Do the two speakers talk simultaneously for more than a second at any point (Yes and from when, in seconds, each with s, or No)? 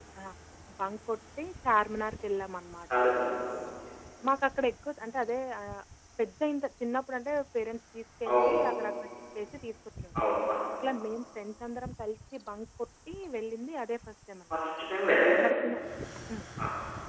No